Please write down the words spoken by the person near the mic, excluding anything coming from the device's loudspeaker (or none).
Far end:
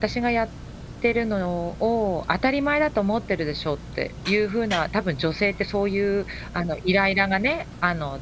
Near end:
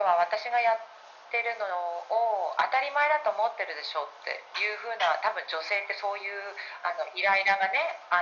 none